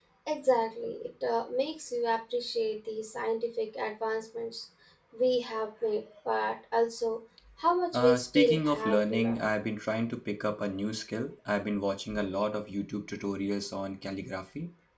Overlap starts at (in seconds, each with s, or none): 7.9 s